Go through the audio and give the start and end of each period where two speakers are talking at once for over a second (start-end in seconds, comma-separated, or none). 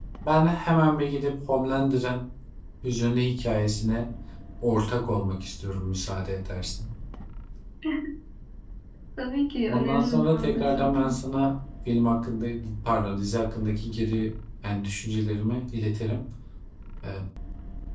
9.7-11.2